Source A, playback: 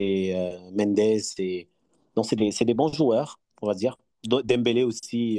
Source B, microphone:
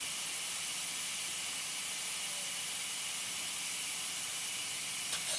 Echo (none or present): none